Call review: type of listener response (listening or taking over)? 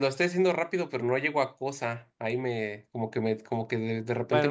taking over